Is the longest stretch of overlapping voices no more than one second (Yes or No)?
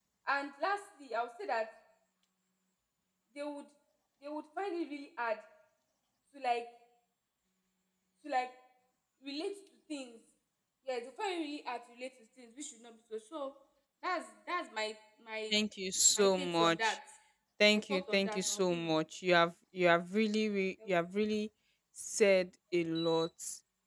No